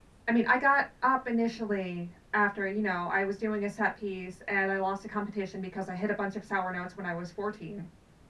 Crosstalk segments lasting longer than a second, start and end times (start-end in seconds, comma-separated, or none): none